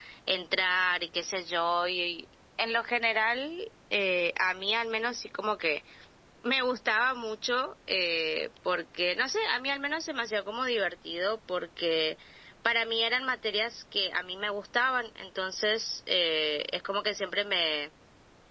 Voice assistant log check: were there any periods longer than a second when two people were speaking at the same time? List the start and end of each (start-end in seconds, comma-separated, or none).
none